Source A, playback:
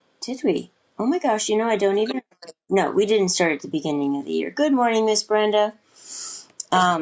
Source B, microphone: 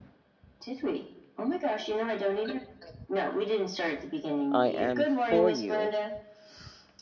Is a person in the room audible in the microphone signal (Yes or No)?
Yes